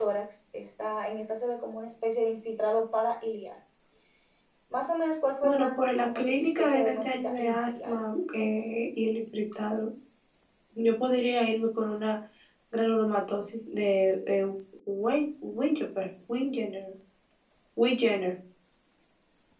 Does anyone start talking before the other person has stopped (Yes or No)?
Yes